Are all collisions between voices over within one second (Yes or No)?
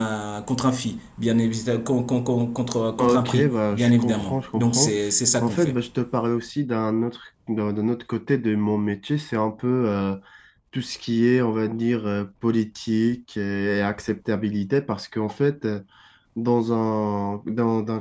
No